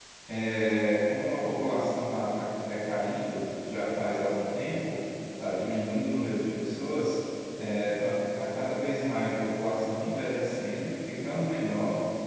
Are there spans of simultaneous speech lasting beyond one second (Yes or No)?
No